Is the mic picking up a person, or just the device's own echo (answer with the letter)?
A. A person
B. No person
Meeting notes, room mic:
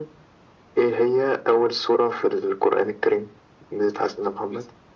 B